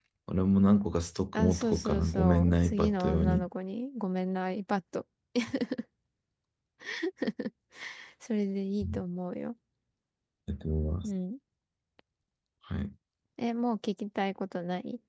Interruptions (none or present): present